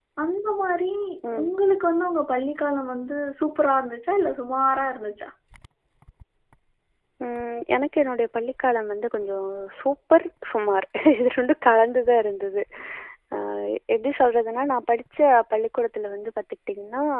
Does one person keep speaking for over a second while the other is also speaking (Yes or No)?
No